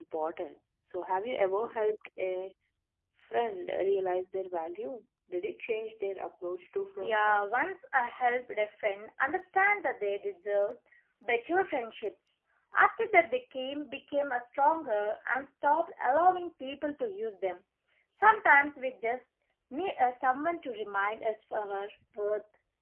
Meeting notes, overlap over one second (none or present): none